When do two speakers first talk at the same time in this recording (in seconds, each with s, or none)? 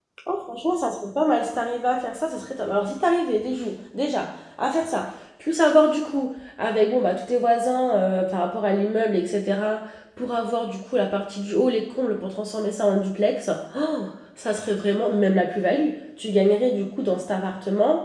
none